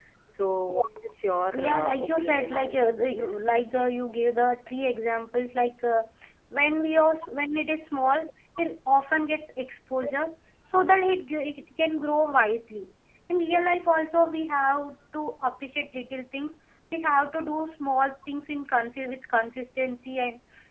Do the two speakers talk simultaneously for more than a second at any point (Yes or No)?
Yes